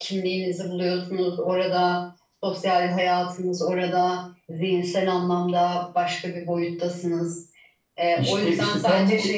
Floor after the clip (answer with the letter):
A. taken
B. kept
A